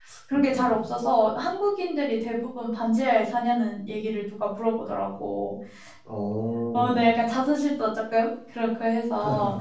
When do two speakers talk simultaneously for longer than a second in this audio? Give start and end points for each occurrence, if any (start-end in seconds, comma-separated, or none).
none